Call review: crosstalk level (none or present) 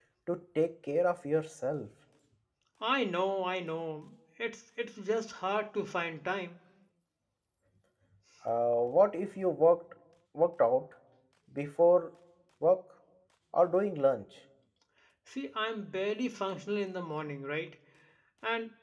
none